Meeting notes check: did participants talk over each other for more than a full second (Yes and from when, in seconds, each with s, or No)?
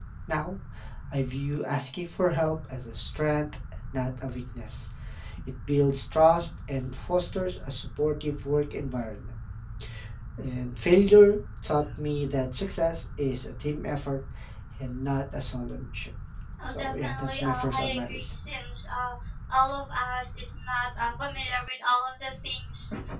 Yes, from 16.7 s